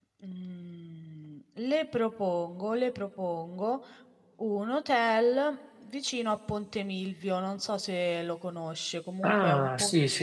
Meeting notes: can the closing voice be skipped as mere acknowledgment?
No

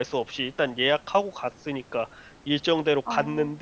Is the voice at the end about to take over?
No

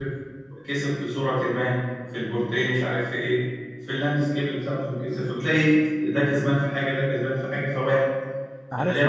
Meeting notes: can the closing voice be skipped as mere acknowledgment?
No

